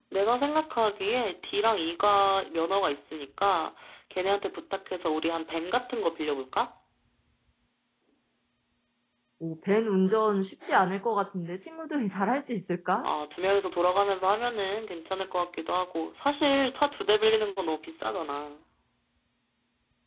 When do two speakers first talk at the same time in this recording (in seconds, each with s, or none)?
none